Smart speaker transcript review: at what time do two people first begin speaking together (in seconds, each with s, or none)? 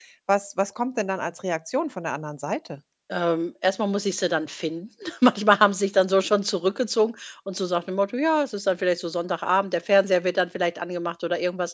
none